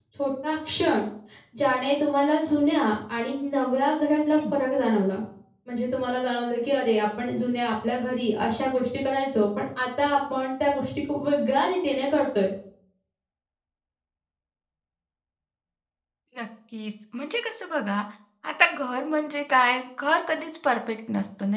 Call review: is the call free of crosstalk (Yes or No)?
Yes